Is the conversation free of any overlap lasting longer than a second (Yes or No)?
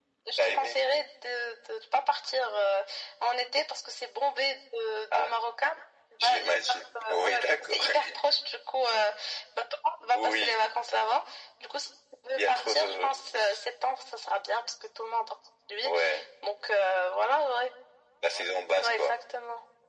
No